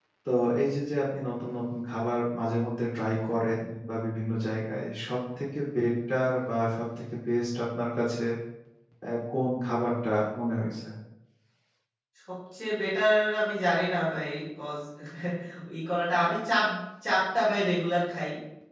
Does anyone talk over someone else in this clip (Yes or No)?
No